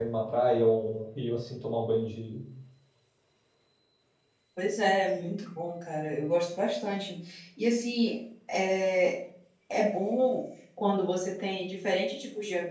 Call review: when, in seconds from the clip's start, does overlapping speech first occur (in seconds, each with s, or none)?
none